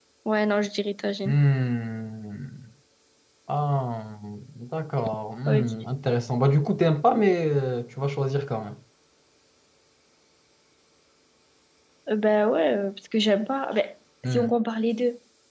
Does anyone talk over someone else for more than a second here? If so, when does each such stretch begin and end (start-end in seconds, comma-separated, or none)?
none